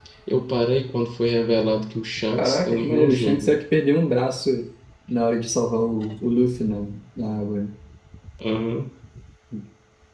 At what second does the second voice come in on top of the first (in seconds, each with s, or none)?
2.3 s